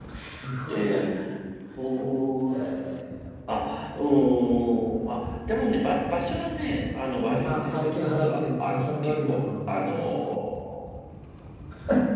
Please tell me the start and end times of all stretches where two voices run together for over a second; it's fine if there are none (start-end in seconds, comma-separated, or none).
7.1-10.4